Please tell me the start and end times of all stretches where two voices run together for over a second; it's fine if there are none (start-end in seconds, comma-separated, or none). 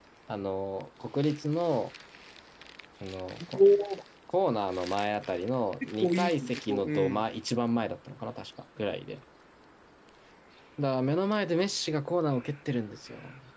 6.0-7.2